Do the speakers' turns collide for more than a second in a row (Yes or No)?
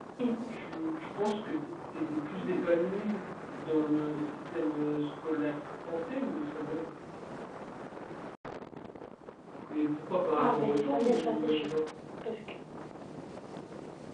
Yes